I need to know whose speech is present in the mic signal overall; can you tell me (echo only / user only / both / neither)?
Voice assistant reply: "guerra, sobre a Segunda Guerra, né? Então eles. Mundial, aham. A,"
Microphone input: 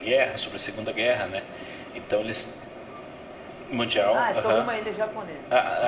both